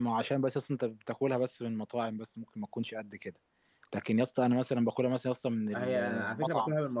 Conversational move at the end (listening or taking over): taking over